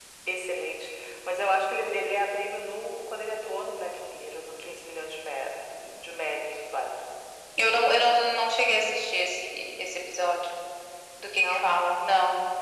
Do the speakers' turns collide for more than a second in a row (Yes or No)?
No